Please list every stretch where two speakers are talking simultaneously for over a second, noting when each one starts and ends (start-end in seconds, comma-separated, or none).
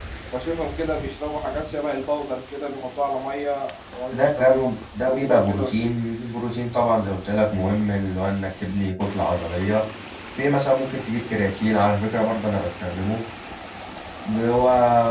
4.1-5.6